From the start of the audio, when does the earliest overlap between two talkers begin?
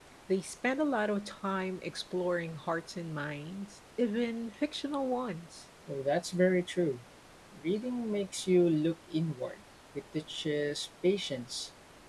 none

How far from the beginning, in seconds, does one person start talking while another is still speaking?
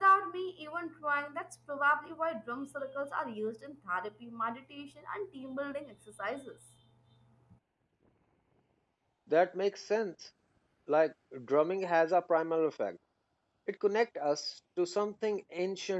none

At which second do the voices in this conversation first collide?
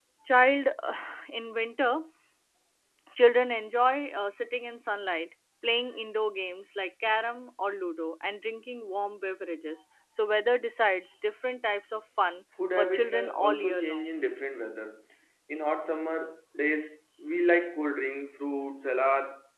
12.8 s

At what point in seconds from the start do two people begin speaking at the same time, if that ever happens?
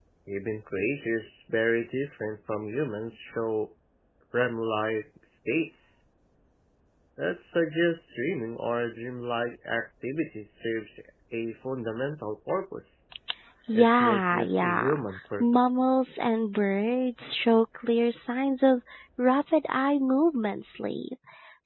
13.7 s

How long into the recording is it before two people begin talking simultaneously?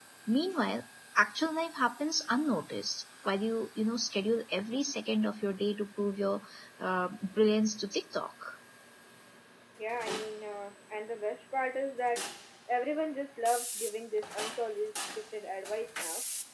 none

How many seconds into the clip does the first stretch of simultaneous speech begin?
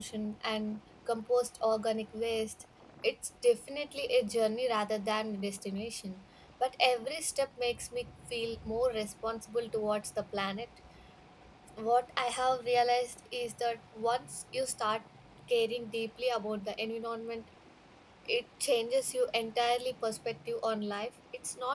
none

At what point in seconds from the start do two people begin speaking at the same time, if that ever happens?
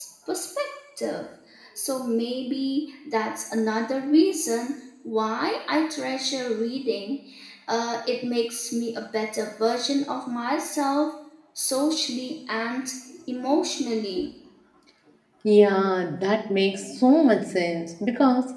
none

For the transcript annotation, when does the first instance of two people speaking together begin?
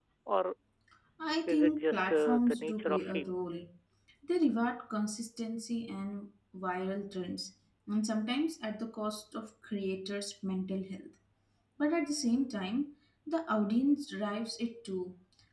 1.5 s

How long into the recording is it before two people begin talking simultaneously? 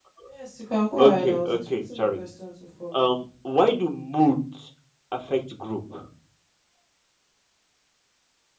1.0 s

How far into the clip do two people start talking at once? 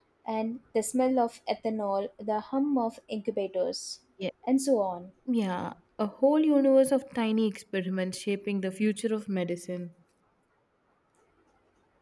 none

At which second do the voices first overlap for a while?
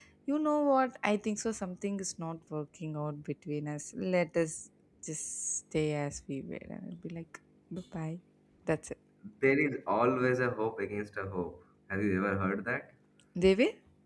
none

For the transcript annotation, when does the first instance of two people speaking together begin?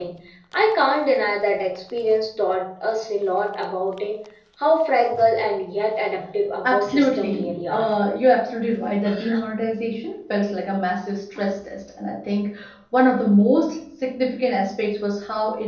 6.6 s

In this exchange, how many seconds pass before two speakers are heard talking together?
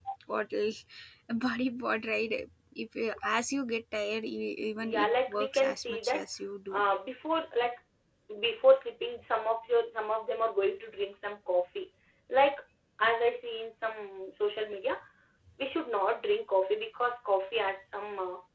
4.8 s

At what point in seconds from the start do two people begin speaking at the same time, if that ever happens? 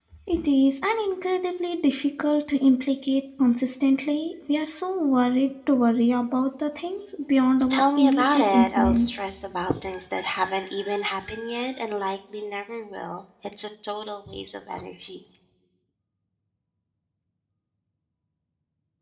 7.6 s

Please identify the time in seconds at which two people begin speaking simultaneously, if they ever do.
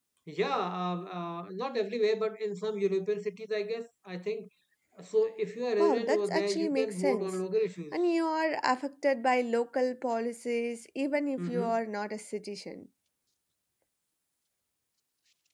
5.8 s

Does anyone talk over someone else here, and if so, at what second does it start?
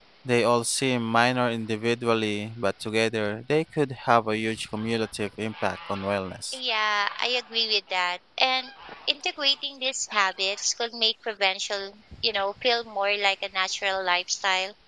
none

